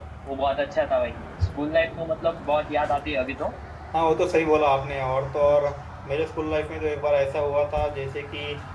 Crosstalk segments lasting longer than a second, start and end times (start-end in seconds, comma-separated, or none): none